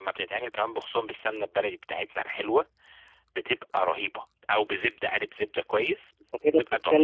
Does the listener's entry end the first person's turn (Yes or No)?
Yes